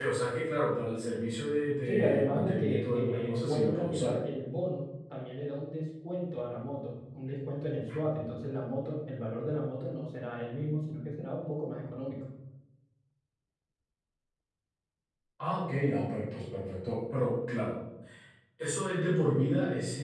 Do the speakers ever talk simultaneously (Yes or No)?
Yes